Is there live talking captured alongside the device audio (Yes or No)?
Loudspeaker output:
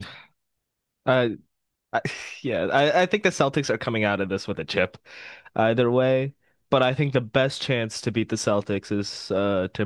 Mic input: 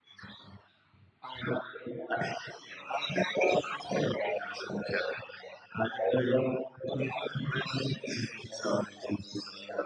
No